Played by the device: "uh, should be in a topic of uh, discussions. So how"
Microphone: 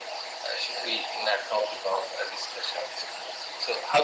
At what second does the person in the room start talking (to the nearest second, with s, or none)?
none